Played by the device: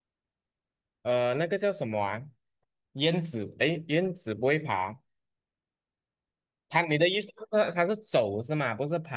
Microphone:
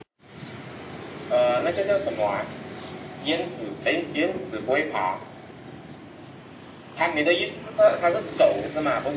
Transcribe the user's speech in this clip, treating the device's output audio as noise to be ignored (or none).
none